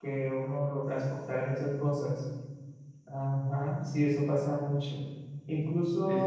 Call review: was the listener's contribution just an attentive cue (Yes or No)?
Yes